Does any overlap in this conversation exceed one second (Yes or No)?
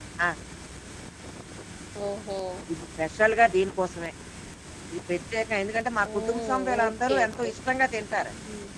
Yes